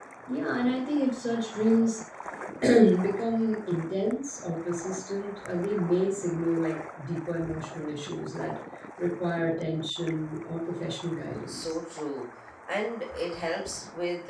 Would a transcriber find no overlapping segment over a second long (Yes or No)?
Yes